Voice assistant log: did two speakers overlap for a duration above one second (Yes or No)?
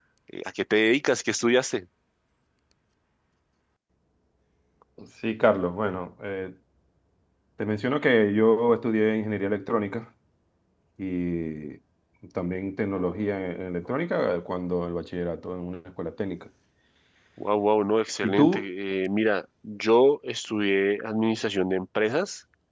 No